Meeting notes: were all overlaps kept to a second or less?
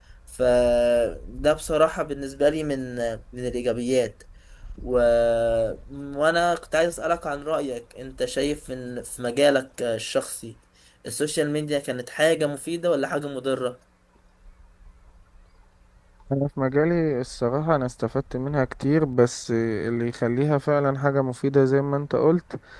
Yes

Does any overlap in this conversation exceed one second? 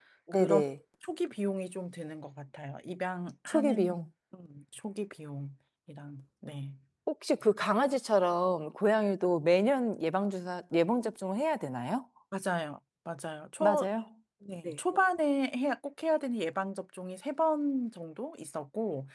No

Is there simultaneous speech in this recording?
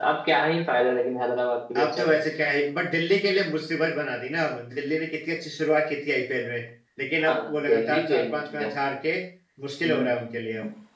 Yes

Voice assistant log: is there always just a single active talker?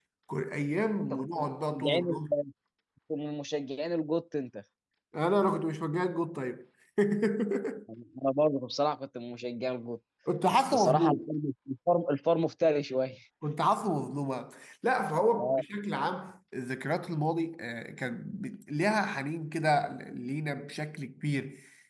No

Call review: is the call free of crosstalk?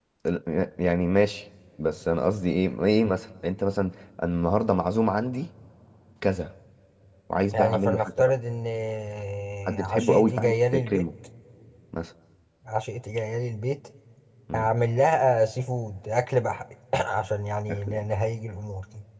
No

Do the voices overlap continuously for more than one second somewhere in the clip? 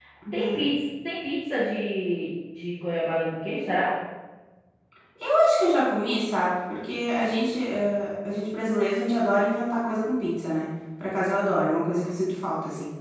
No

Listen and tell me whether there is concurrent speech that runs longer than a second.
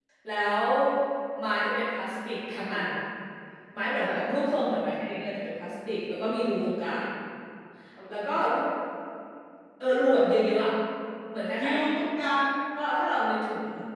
No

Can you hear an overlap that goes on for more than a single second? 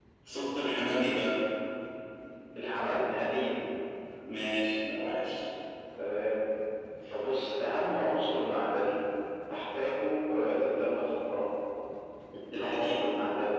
No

